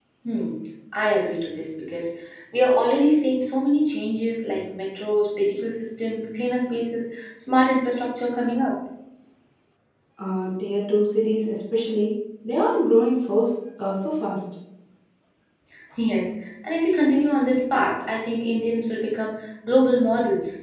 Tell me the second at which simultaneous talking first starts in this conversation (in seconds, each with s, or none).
none